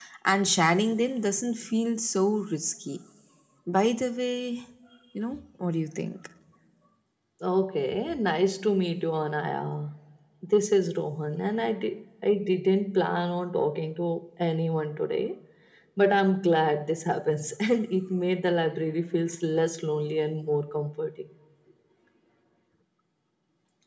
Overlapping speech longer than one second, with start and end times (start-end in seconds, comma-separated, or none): none